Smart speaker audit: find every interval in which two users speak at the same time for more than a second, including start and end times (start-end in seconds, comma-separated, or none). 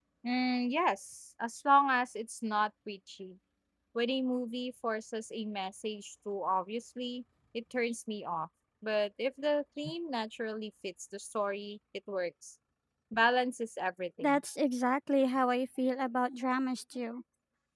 none